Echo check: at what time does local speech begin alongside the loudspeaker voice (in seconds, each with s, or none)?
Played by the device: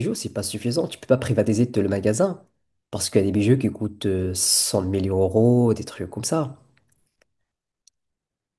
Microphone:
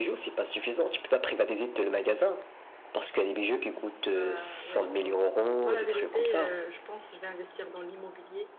4.0 s